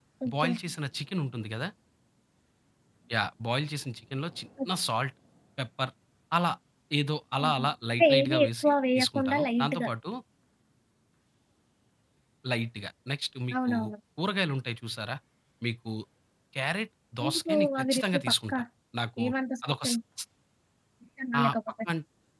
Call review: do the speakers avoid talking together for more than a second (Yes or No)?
No